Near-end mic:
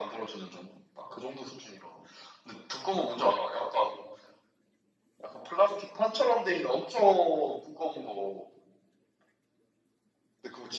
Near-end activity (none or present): none